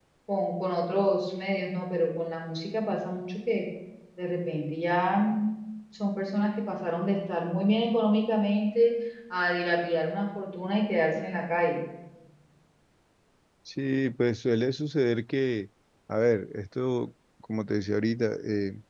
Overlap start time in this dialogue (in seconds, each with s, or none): none